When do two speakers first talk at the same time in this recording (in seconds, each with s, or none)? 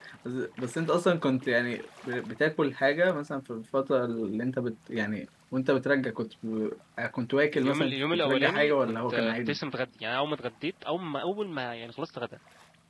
7.5 s